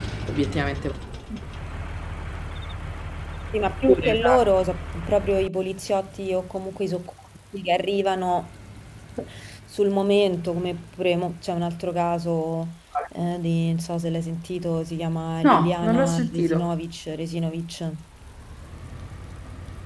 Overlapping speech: Yes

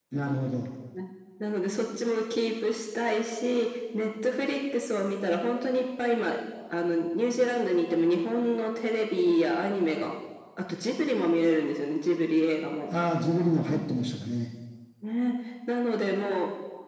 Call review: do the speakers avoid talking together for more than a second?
Yes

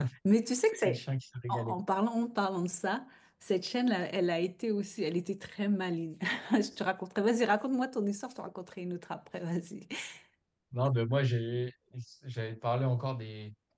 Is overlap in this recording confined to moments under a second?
Yes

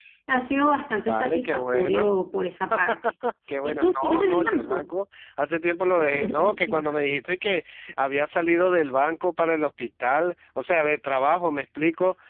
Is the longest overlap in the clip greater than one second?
Yes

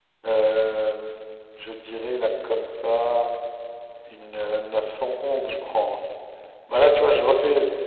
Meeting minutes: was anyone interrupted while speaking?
No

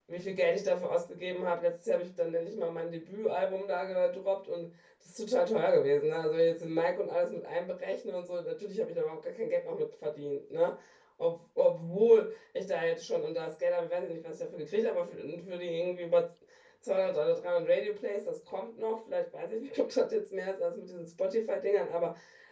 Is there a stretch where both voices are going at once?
No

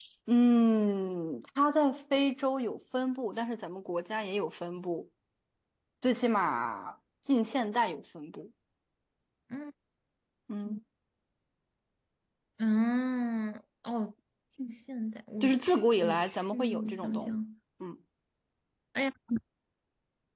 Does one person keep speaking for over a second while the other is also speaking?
Yes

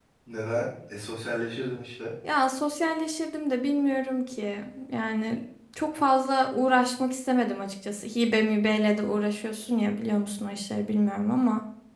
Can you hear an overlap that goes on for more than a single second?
No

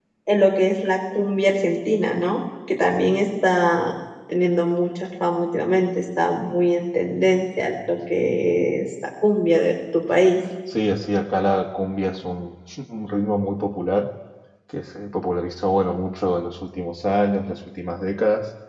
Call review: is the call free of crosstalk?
Yes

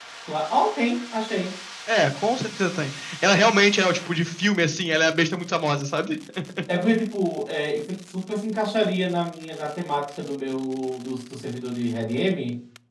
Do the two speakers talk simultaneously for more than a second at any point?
No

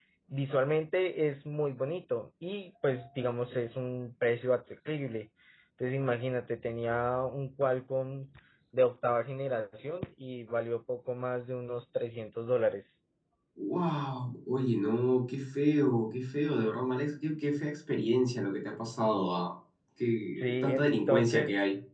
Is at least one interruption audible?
Yes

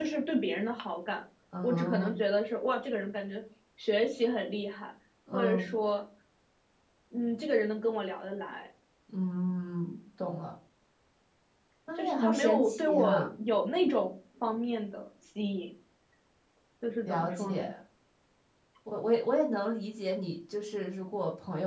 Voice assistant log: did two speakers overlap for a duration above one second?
Yes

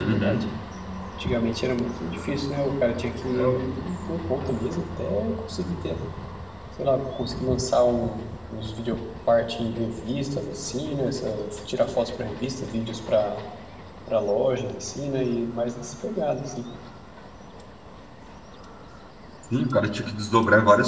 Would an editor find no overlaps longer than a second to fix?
Yes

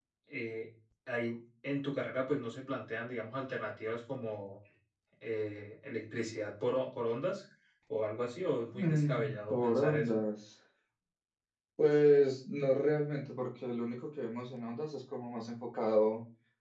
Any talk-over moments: Yes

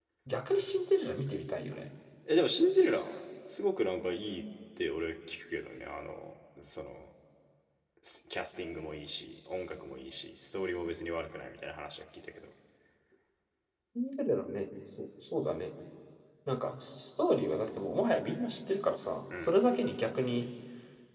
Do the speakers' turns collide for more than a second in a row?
No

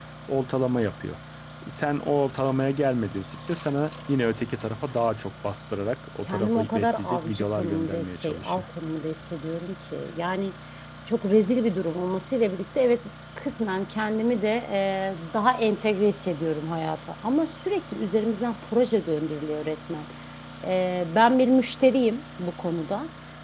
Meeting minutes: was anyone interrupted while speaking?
Yes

